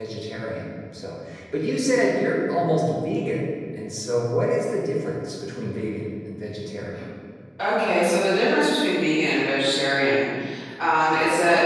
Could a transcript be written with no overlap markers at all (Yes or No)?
Yes